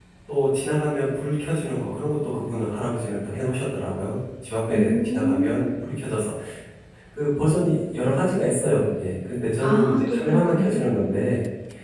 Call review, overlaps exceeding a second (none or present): present